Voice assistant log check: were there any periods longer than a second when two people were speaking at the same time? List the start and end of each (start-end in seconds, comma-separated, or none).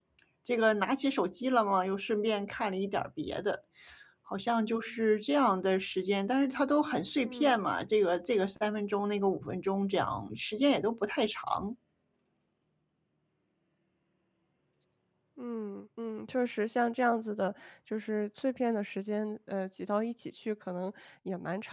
none